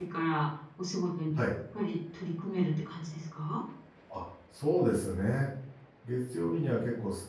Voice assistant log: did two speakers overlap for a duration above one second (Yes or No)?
No